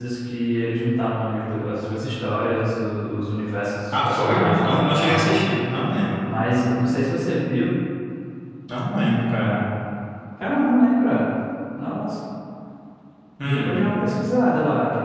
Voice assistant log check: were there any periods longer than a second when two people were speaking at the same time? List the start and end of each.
3.9-5.3

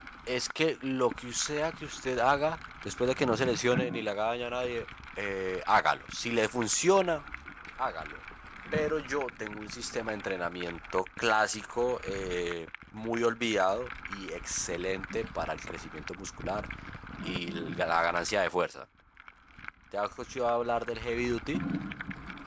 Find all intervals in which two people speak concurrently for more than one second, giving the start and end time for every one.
none

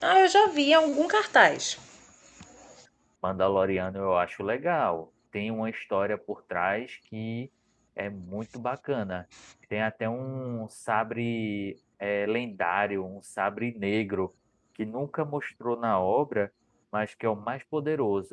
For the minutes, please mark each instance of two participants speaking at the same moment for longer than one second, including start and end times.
none

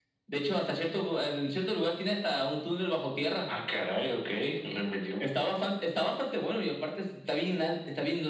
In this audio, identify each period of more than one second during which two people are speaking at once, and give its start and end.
none

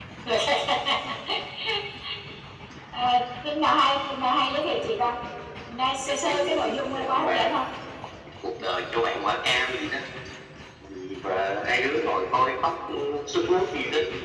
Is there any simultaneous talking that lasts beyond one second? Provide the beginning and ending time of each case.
6.1-7.5

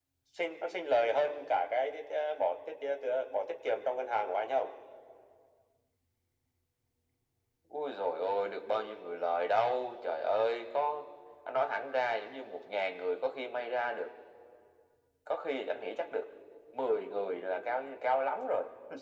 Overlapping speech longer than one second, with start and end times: none

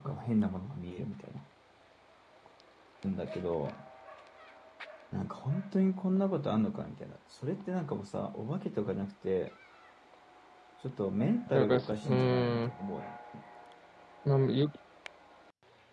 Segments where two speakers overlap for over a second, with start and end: 11.5-12.7

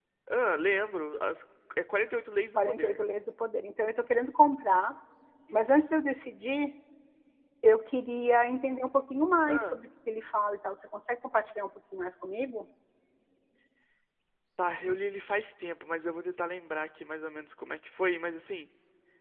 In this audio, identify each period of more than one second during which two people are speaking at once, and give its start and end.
none

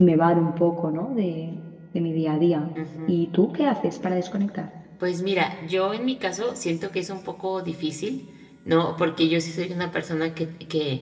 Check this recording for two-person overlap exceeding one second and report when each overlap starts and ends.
none

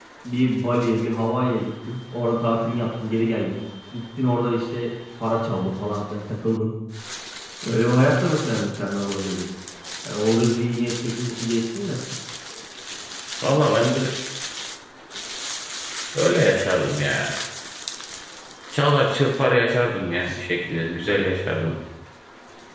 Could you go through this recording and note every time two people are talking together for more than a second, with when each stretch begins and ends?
none

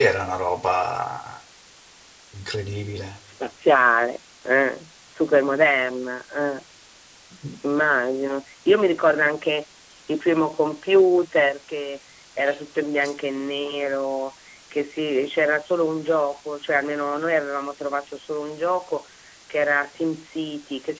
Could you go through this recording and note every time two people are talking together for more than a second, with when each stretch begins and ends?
none

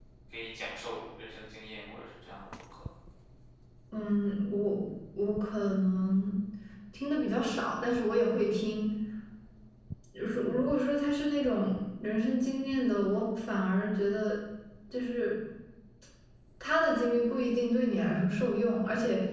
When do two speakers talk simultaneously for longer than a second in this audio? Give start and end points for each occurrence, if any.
none

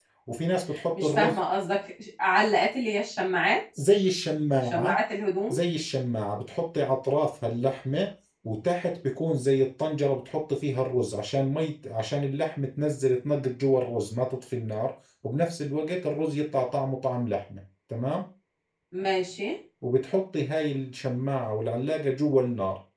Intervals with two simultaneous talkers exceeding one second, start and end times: none

